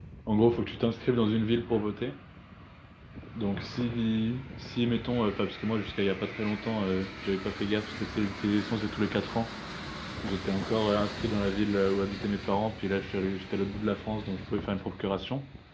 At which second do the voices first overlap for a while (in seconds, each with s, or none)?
none